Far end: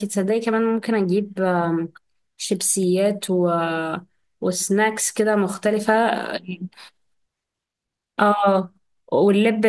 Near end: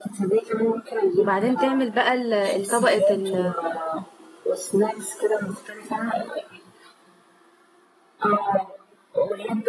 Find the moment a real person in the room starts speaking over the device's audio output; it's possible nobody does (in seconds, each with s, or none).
1.2 s